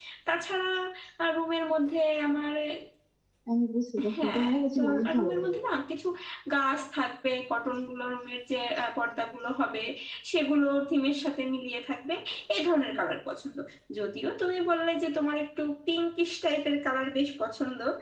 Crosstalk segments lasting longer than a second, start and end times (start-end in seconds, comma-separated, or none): 4.1-5.6